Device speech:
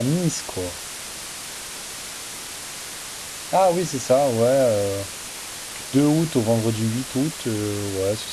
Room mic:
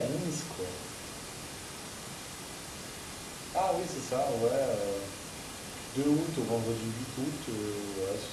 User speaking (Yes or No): No